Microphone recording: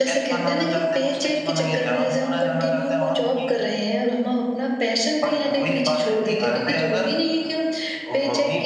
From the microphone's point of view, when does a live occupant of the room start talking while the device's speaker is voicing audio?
none

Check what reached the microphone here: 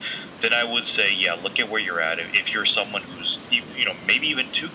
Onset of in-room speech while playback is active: none

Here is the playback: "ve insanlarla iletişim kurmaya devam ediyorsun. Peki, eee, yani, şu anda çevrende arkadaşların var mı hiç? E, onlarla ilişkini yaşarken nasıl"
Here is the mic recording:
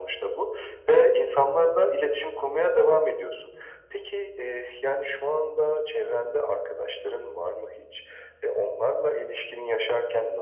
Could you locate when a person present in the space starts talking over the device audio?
none

